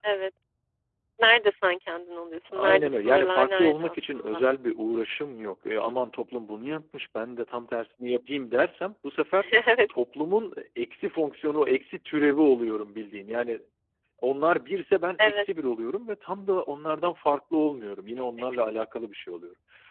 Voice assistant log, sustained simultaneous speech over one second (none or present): present